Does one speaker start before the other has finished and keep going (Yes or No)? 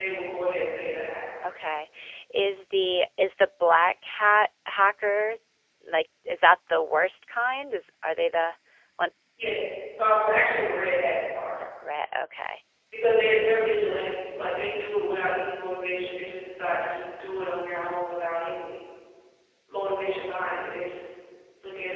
No